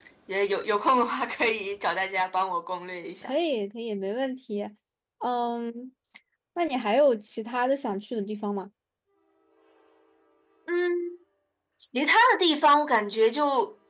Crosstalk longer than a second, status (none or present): none